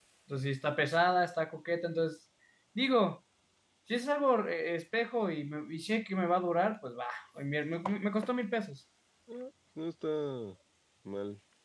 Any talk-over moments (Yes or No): No